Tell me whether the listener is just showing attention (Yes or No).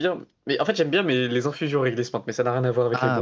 No